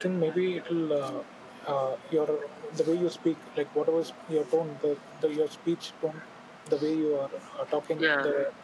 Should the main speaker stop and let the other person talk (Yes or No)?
No